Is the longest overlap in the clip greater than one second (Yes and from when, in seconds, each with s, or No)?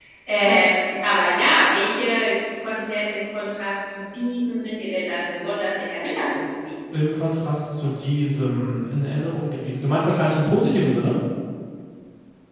No